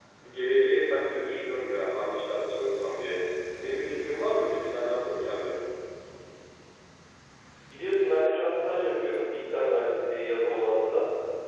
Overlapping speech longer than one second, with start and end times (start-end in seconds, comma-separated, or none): none